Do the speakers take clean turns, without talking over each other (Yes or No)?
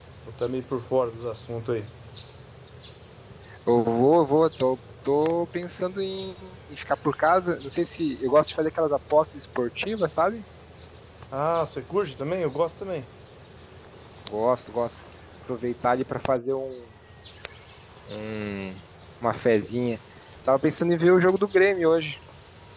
Yes